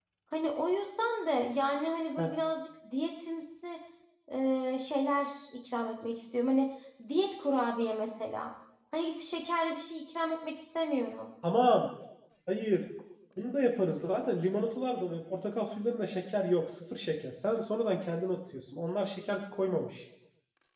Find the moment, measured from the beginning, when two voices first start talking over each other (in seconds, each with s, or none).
none